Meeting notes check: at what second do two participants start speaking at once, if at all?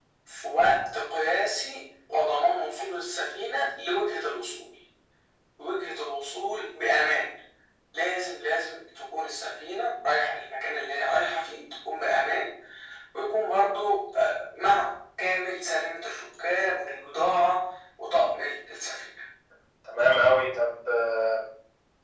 none

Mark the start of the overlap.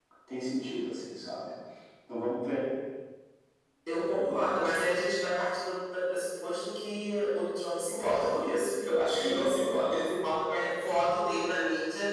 none

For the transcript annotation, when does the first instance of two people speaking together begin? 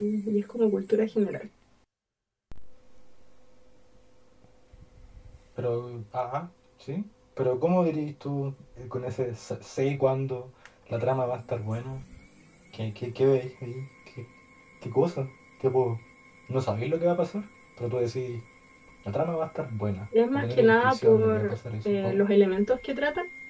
20.1 s

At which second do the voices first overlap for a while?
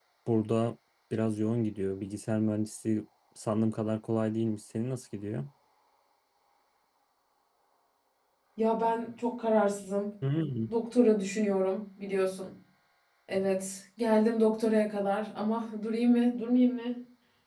none

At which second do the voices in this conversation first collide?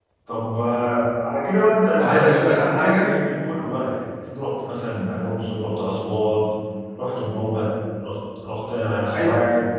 1.9 s

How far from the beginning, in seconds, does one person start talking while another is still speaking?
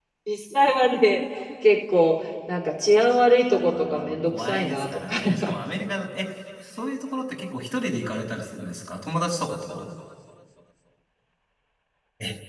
3.5 s

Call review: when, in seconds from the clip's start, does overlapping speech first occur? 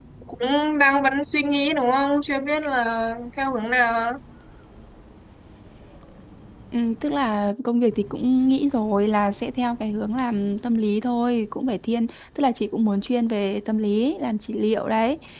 none

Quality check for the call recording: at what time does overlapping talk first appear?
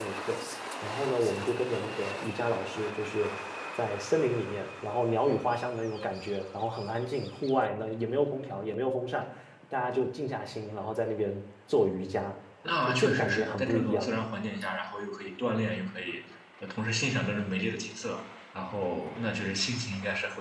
12.8 s

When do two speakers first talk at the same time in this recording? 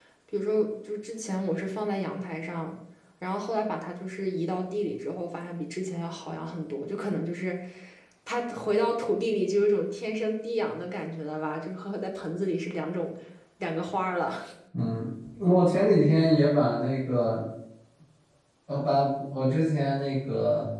none

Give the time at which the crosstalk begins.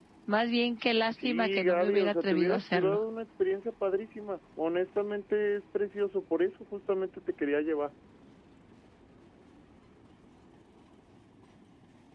1.1 s

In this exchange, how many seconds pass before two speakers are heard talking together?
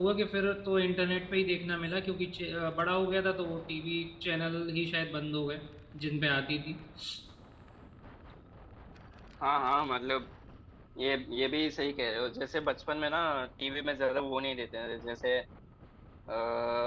none

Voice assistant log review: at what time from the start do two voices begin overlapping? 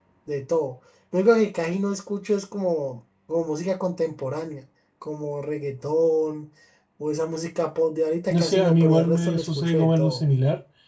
8.3 s

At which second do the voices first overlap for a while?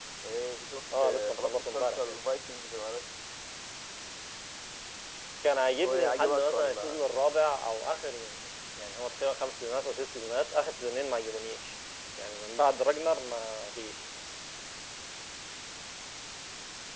1.0 s

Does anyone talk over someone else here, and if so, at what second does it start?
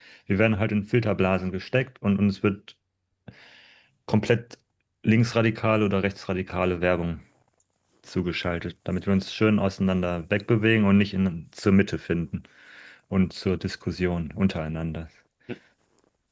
none

